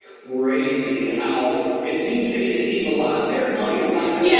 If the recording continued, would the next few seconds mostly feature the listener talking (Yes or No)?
Yes